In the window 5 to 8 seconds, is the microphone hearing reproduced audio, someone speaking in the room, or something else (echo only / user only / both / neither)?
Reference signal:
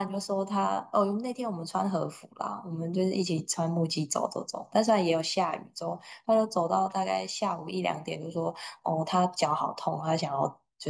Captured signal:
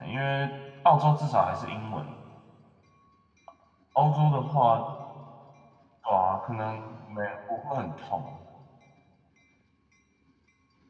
user only